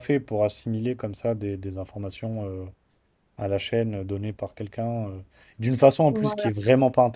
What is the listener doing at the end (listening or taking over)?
listening